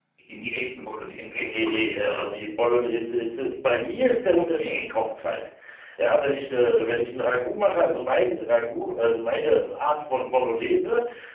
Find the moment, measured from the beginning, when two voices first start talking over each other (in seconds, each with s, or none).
1.3 s